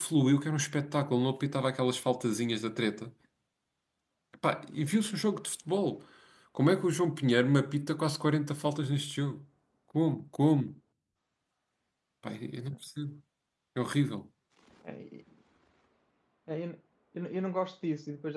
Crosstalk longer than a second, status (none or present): none